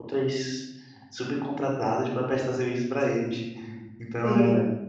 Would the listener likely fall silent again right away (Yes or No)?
Yes